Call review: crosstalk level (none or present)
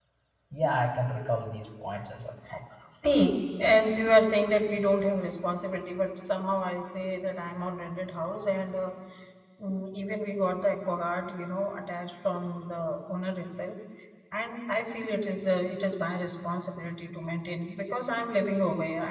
none